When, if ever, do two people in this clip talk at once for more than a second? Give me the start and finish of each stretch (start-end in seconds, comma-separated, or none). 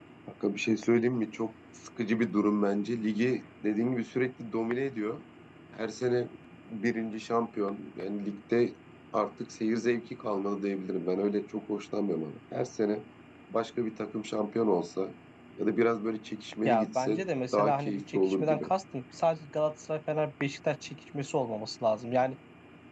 16.6-18.7